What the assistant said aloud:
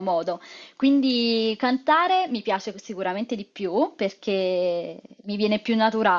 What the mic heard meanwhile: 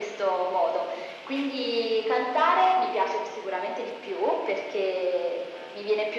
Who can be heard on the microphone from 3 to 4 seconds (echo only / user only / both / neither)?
echo only